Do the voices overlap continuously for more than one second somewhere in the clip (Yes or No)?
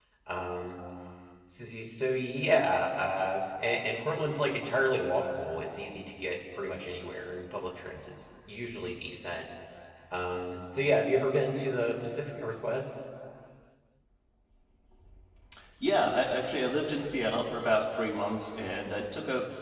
No